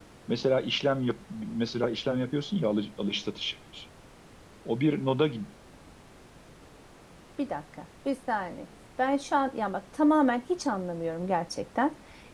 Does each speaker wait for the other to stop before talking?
Yes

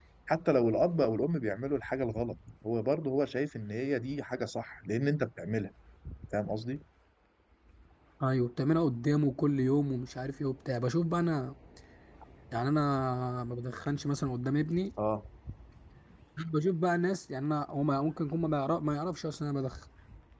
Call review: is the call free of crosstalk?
Yes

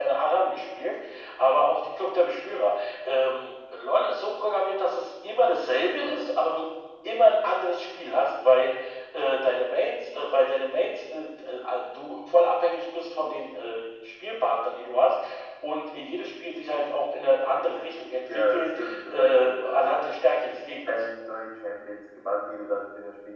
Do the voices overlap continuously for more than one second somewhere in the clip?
Yes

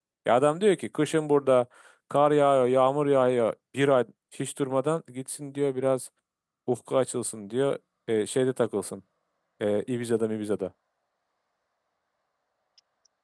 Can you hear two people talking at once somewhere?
No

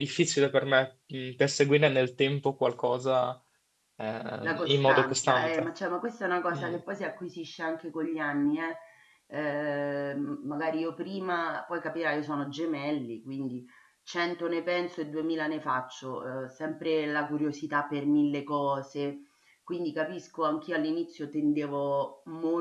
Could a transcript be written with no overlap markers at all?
No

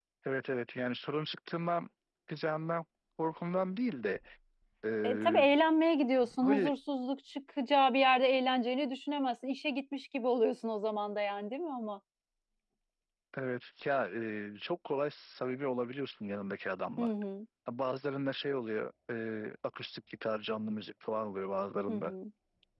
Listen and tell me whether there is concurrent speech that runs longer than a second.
No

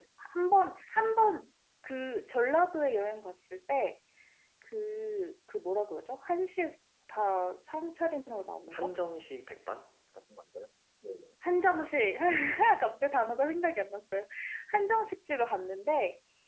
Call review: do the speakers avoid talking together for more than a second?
Yes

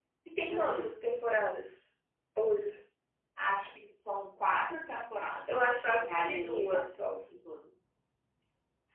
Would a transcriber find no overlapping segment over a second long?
No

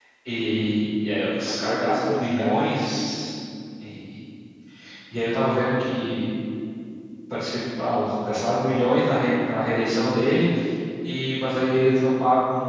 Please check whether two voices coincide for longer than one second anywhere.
Yes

